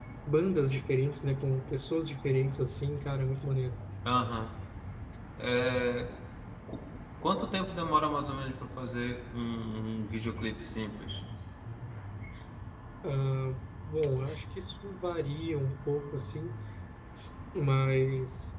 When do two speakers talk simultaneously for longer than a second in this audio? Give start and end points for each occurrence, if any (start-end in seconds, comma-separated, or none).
none